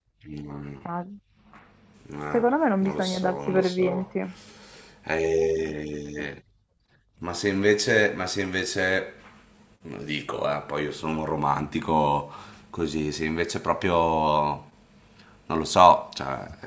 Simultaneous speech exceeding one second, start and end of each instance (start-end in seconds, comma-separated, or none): 2.8-4.0